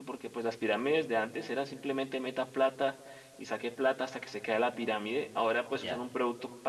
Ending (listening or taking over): listening